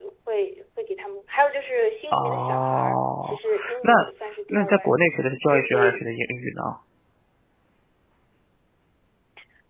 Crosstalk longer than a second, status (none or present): present